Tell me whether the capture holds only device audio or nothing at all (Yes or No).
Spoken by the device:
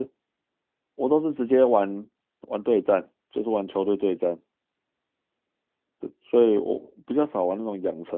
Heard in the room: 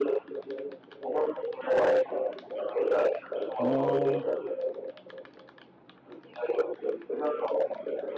No